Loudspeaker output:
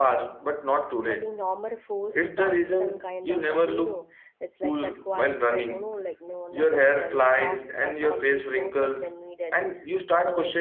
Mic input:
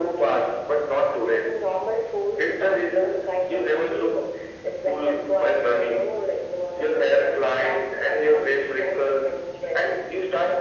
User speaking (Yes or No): No